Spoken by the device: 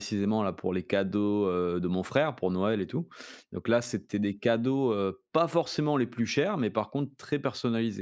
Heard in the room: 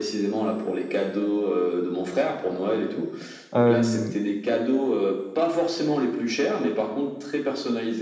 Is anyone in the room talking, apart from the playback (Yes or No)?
Yes